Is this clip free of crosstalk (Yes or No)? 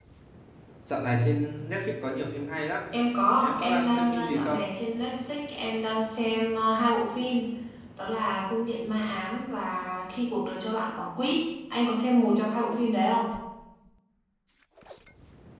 No